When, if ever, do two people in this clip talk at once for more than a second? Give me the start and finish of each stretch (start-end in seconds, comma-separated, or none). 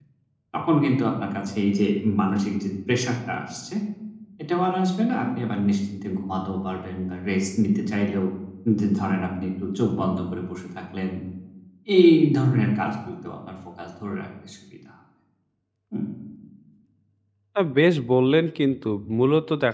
none